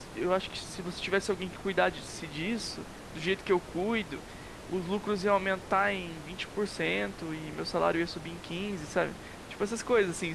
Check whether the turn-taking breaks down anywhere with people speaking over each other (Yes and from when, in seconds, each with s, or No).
No